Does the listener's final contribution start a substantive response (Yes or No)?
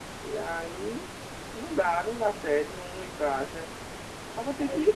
No